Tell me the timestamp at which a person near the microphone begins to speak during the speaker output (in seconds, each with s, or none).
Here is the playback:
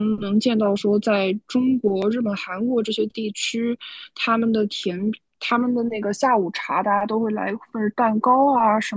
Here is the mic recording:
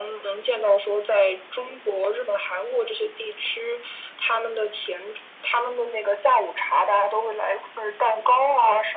none